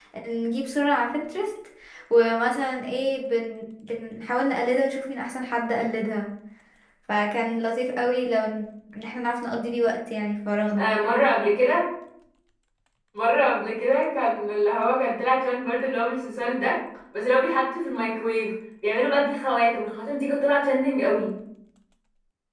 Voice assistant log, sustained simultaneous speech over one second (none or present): none